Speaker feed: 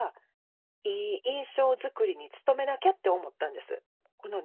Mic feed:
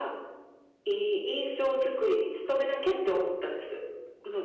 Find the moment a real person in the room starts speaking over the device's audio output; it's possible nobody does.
none

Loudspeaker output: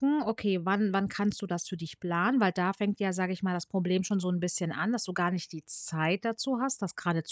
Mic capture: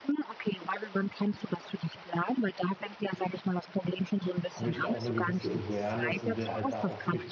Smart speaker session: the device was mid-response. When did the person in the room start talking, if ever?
5 s

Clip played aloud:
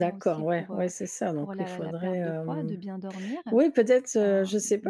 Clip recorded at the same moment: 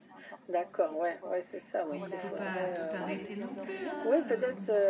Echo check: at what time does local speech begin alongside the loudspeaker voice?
2 s

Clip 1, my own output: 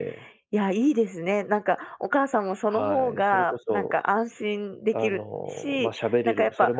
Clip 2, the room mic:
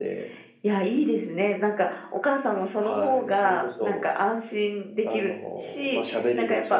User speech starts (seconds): none

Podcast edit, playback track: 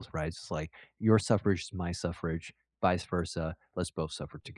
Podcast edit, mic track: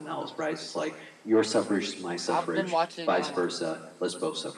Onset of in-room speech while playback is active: 2 s

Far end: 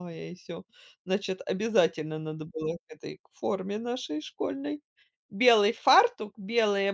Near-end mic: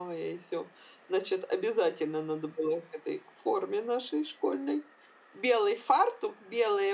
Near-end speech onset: none

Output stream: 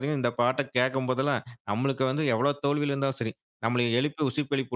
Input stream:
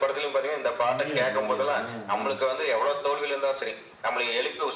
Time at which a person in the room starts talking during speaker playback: 1 s

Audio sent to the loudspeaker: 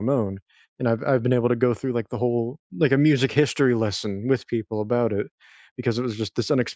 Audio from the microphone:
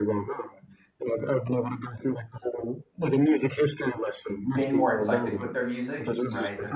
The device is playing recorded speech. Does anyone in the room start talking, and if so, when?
5 s

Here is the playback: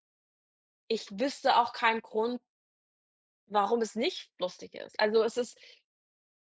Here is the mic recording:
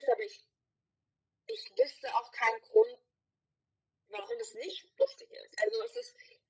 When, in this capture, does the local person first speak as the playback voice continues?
none

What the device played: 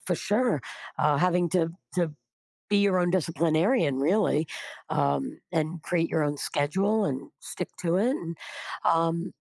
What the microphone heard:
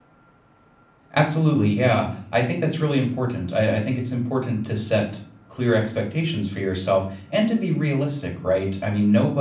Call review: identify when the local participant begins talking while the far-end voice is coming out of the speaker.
1 s

